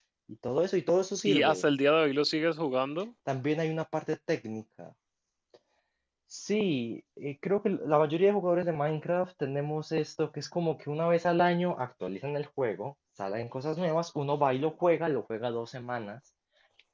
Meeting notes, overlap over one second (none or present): none